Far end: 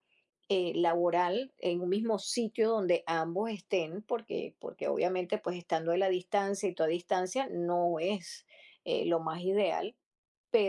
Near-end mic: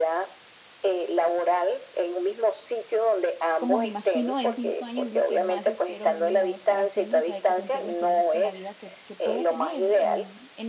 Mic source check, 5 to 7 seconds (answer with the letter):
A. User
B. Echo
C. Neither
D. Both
D